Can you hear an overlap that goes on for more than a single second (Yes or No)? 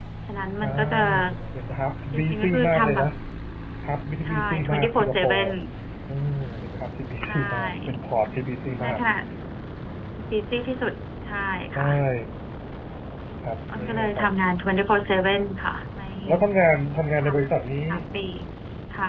Yes